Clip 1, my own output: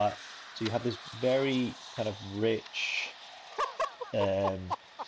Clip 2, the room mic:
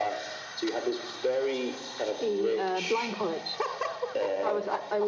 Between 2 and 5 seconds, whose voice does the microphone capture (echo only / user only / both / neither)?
both